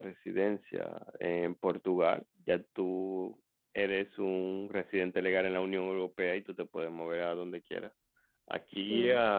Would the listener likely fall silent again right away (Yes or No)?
Yes